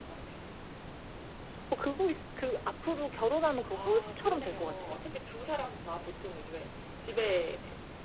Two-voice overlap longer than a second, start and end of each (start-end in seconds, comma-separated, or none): 3.7-4.9